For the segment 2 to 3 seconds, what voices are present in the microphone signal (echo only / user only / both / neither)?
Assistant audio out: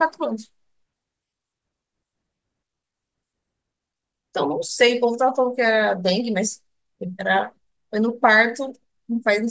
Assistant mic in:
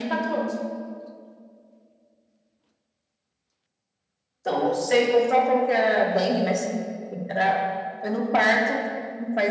neither